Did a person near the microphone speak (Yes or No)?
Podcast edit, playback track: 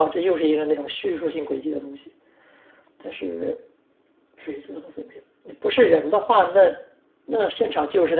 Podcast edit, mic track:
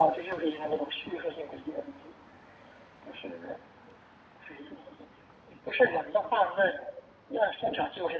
No